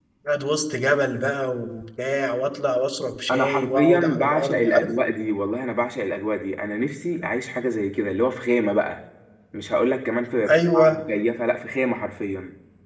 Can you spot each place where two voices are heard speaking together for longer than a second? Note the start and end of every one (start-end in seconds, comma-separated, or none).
3.3-4.9